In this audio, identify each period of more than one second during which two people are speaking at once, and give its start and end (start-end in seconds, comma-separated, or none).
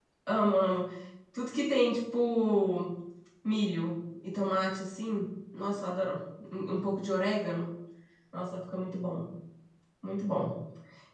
none